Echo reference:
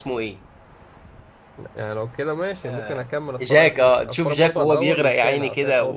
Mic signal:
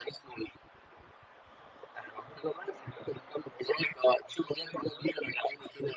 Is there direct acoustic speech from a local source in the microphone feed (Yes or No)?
No